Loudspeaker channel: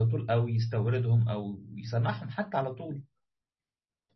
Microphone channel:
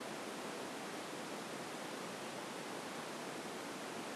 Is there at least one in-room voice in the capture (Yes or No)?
No